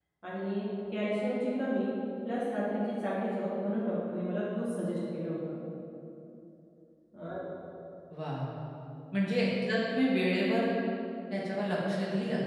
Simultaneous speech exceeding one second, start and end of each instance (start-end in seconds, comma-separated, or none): none